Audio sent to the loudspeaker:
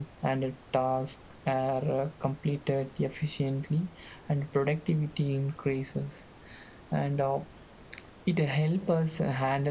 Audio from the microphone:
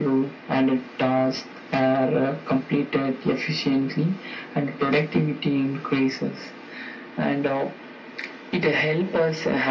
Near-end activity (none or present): none